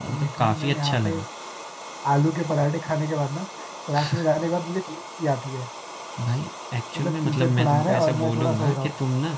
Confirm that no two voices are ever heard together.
No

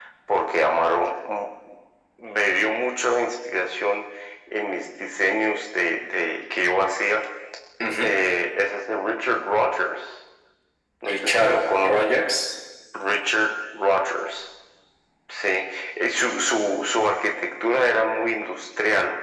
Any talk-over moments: Yes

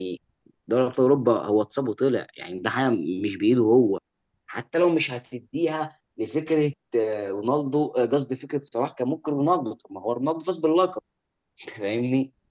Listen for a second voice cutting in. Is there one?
No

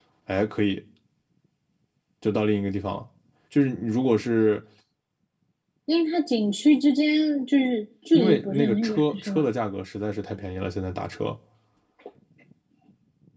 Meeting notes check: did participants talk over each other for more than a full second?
Yes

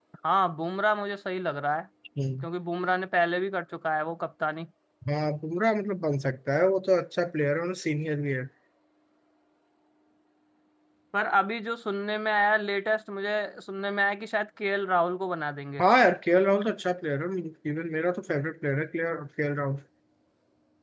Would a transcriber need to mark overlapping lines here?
No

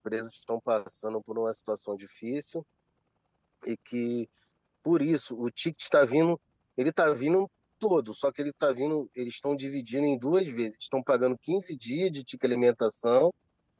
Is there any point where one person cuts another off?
No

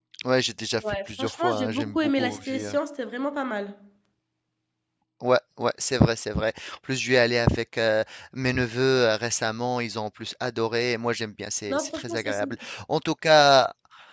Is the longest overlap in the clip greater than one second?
Yes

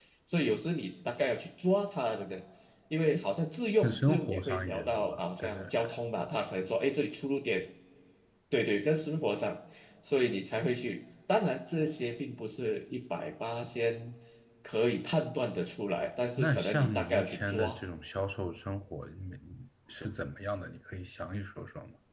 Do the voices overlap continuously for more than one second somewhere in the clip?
Yes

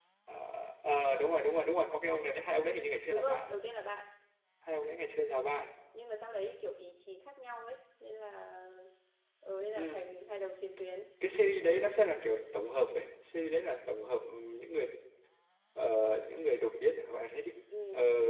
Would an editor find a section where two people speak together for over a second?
No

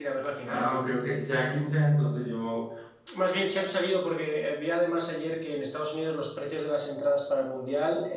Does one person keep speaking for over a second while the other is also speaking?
No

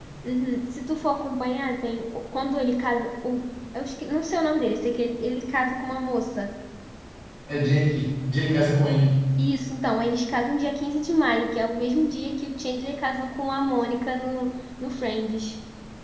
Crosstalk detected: No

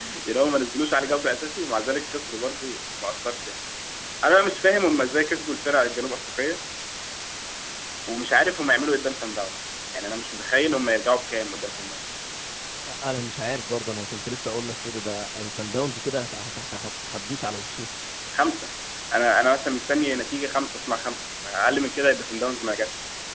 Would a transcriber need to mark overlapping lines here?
No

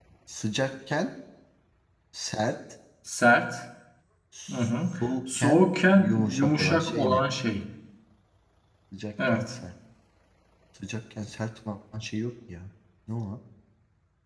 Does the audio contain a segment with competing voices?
Yes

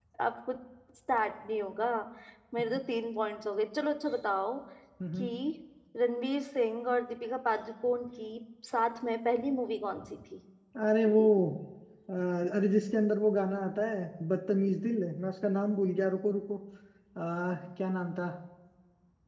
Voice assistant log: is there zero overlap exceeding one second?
Yes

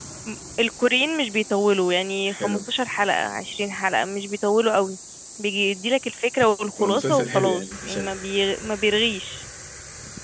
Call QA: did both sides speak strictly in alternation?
No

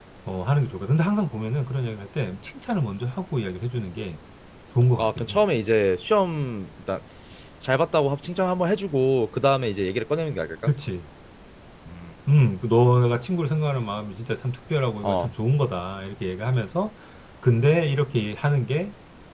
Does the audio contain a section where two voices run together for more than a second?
No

